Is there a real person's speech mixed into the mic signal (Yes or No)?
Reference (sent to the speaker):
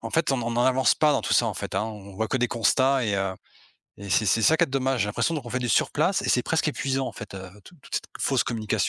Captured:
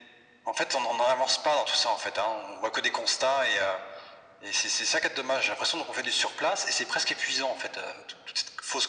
No